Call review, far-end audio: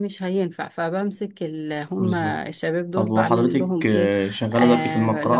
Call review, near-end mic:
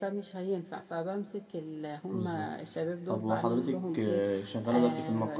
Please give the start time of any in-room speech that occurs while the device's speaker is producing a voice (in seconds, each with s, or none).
none